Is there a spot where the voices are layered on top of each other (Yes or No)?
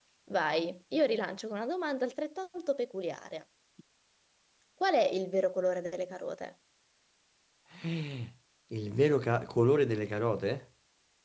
No